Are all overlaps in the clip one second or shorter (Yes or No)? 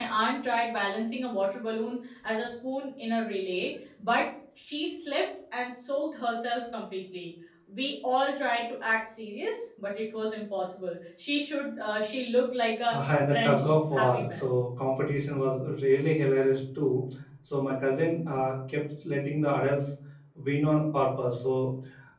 No